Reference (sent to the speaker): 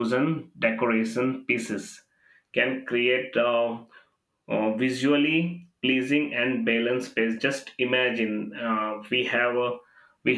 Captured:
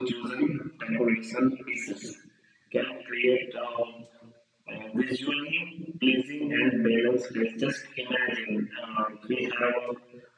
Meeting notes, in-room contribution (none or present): none